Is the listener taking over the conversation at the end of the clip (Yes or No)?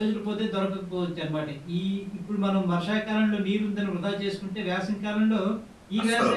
No